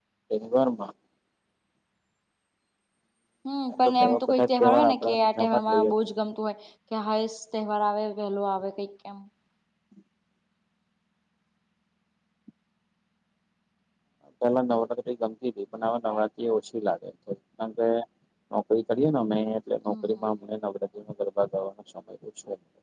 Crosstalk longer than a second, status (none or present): present